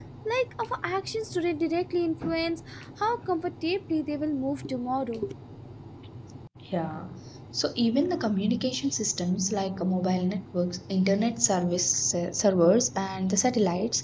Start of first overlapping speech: none

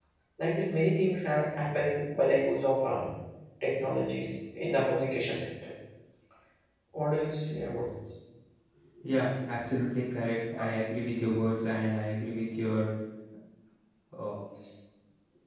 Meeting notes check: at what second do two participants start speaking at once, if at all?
none

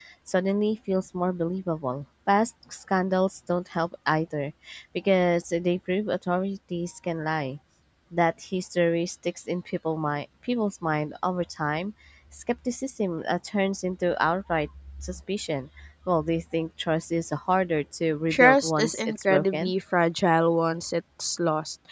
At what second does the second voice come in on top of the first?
18 s

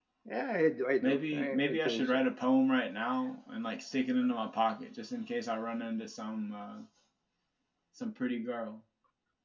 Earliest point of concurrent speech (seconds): 1 s

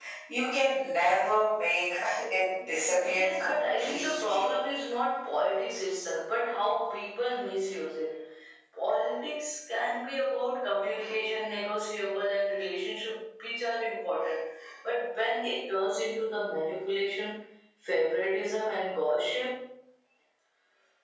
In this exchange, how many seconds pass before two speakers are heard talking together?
3 s

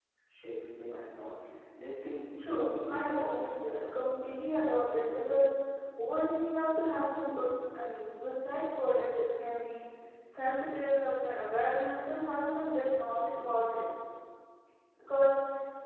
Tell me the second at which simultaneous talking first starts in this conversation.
2 s

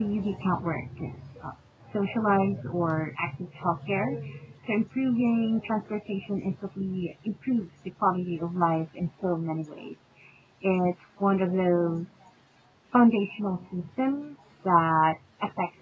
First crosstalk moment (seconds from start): none

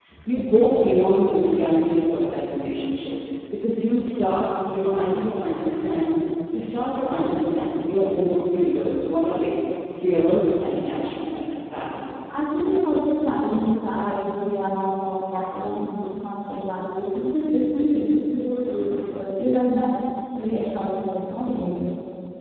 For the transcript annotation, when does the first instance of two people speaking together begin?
none

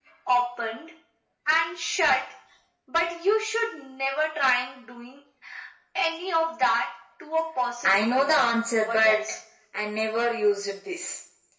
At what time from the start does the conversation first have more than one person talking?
8 s

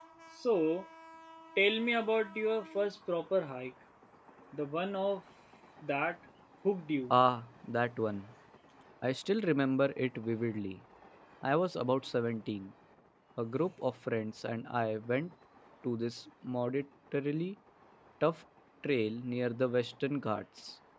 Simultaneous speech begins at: none

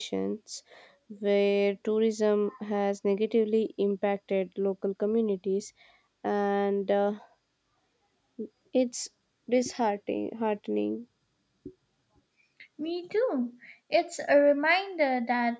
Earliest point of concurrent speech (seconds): none

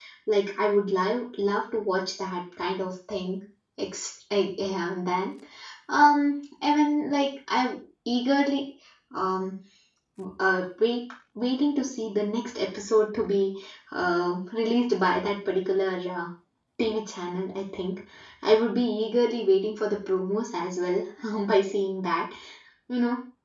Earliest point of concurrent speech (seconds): none

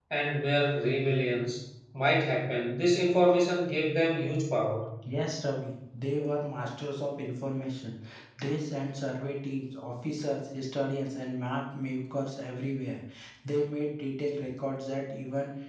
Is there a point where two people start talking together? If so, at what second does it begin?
none

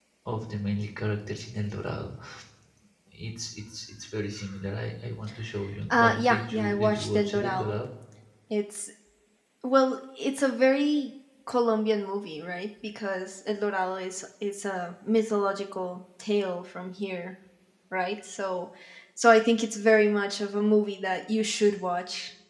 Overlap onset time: 6 s

